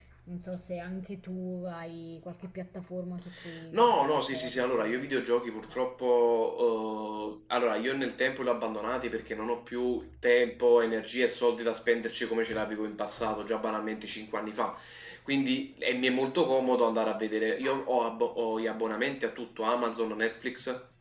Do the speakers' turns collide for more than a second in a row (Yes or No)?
Yes